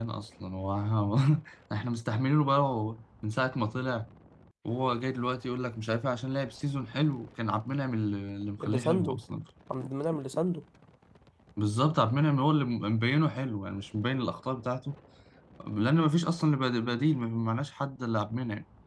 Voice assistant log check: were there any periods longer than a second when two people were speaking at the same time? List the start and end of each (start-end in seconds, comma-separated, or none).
none